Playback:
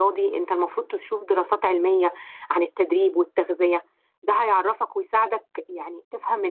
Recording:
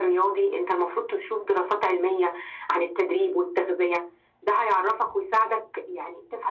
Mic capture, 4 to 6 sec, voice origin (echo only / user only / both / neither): echo only